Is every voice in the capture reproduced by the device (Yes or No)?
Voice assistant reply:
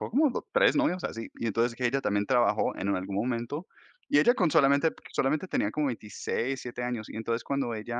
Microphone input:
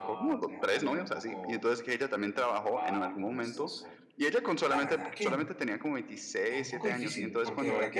No